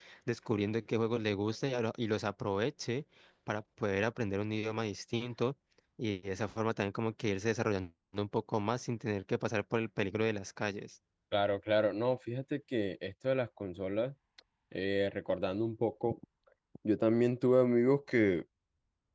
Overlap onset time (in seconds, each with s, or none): none